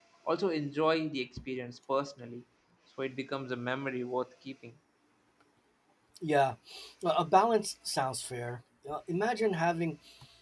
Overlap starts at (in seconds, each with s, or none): none